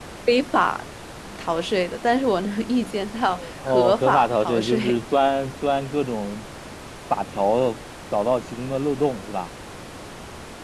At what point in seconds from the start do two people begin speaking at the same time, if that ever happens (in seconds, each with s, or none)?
3.2 s